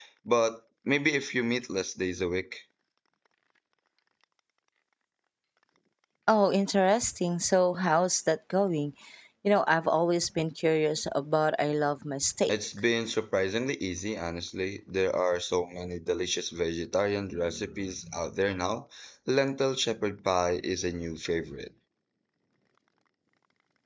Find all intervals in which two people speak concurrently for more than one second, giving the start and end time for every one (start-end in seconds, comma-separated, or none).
none